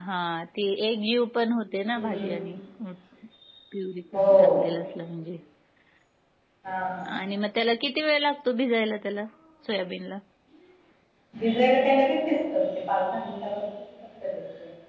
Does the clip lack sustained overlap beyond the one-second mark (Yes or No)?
Yes